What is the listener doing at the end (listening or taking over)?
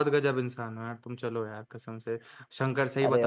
listening